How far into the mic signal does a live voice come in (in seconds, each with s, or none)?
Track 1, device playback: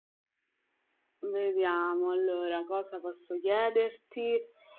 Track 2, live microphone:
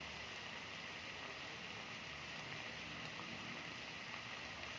none